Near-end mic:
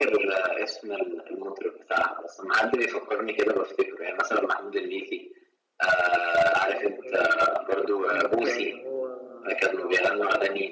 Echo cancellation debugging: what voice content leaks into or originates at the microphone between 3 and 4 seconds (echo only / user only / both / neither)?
echo only